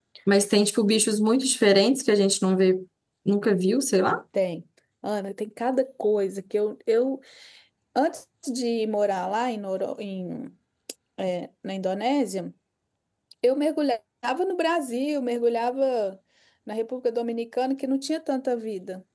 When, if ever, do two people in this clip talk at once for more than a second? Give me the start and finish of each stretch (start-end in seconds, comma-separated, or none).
none